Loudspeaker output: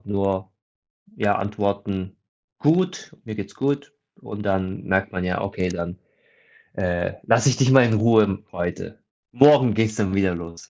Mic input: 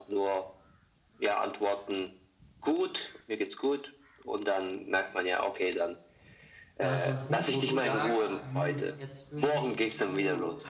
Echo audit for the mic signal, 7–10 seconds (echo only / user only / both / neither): both